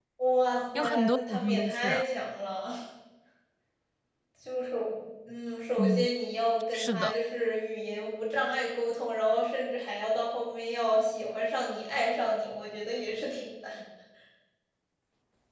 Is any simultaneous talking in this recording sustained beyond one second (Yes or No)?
Yes